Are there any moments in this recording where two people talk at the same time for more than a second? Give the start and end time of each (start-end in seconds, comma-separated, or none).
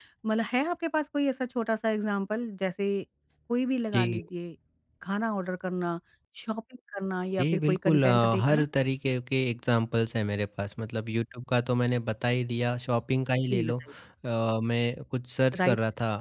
7.4-8.6